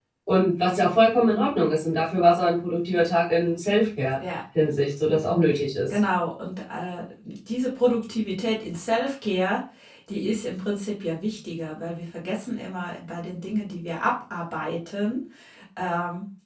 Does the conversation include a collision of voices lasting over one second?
No

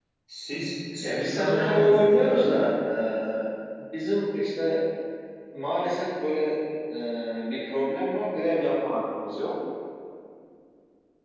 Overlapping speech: Yes, from 1.0 s

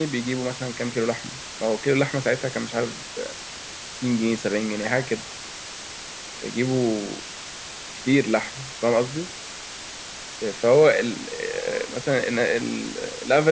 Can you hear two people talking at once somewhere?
No

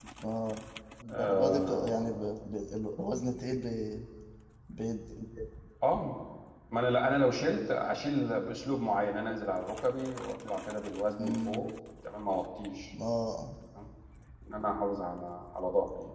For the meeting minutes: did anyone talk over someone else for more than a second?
Yes, from 1.1 s

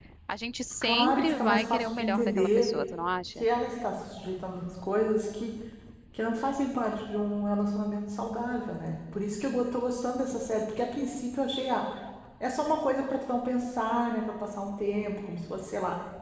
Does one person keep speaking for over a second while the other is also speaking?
Yes, from 0.8 s

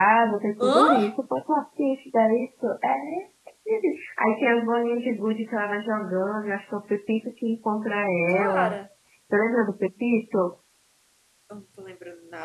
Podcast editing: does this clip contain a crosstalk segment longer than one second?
No

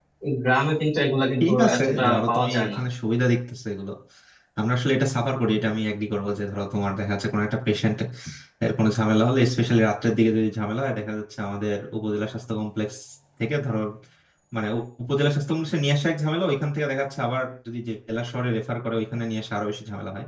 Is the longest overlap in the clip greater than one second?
Yes, from 1.4 s

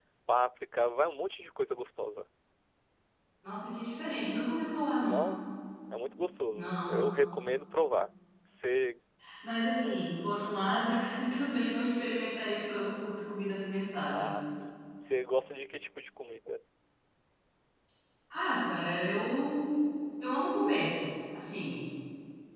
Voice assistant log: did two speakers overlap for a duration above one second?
No

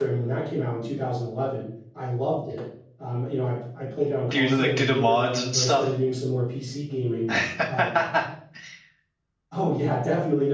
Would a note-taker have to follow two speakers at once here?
Yes, from 4.3 s

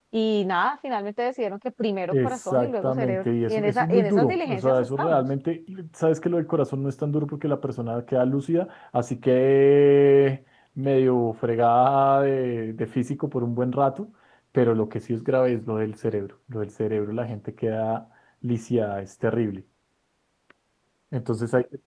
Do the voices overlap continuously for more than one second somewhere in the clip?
Yes, from 2.1 s

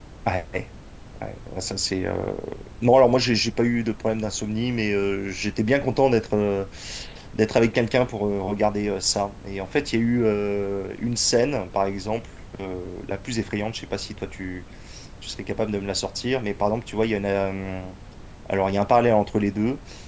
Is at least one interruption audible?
No

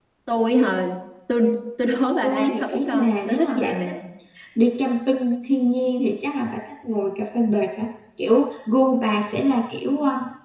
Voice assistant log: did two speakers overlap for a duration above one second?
Yes, from 2.2 s

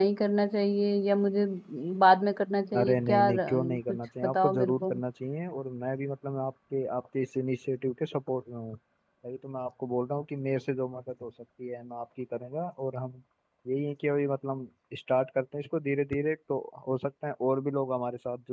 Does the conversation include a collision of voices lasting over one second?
Yes, from 2.8 s

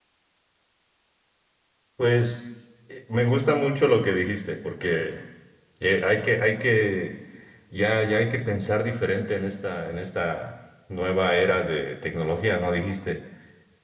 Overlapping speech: No

